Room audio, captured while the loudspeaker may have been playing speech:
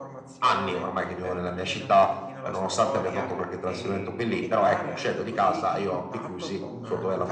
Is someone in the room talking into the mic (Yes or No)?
Yes